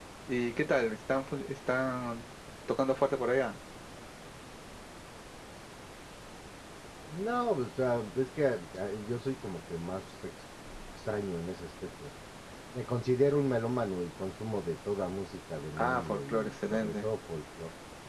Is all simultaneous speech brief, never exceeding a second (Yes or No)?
No